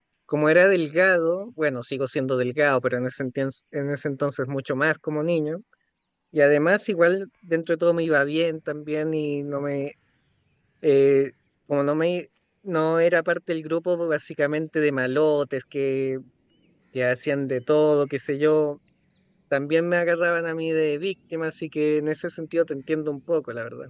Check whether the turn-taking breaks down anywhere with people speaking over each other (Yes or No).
No